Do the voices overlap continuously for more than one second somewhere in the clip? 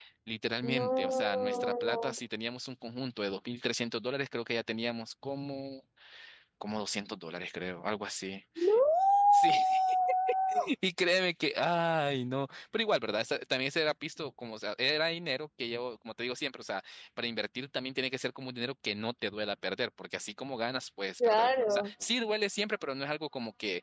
Yes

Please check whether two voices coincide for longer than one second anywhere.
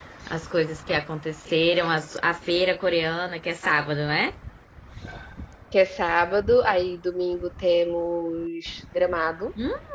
No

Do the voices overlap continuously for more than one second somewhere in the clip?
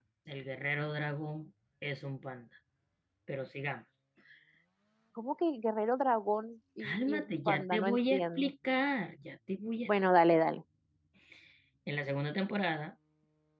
Yes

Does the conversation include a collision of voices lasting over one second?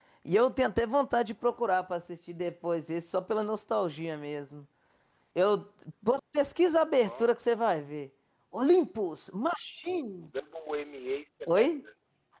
No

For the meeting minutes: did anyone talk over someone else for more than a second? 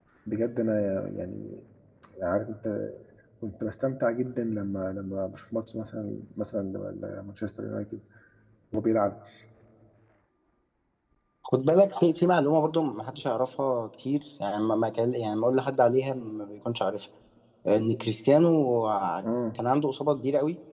No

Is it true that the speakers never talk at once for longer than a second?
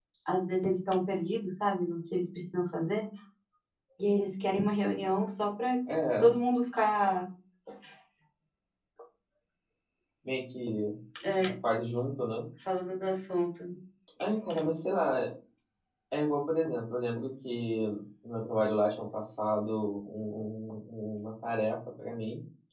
Yes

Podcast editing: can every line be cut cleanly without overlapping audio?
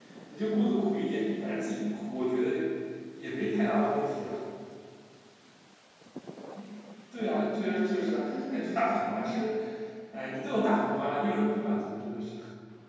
No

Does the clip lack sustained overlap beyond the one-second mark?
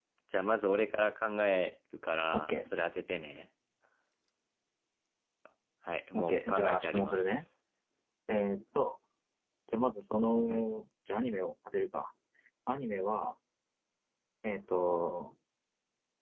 No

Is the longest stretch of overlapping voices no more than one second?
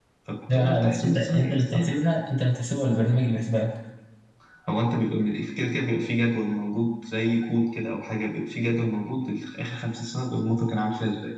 No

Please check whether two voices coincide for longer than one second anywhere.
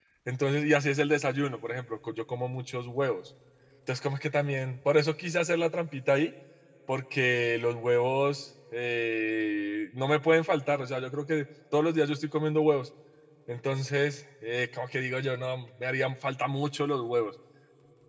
No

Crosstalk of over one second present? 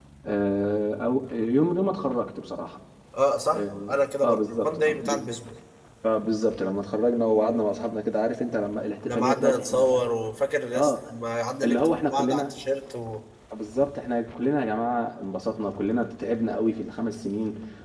Yes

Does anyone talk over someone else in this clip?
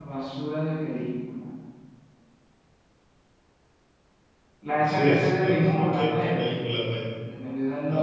Yes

